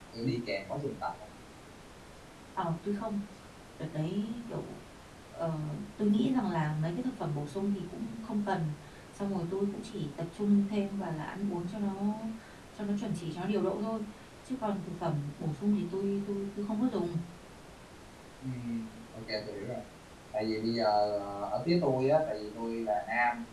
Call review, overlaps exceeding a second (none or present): none